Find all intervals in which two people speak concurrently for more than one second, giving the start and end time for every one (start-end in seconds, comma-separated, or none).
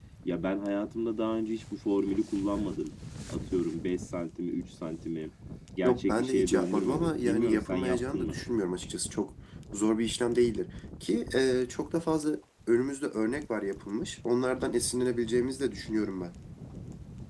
5.8-8.4